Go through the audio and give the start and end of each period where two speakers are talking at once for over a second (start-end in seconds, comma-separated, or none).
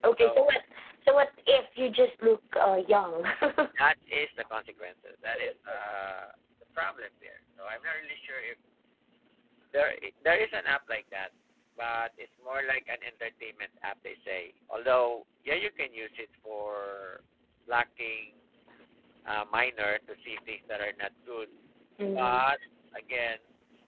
none